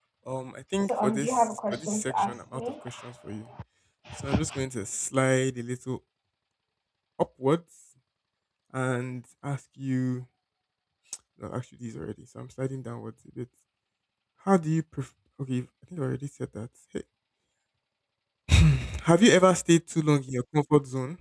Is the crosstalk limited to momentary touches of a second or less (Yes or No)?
No